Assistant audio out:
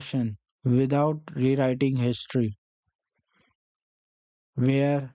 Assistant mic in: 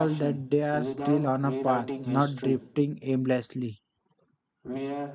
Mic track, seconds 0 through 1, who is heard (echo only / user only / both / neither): both